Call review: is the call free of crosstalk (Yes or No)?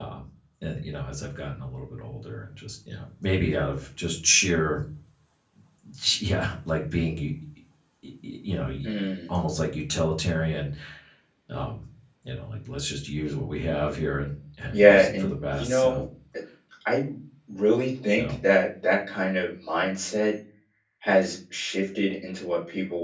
No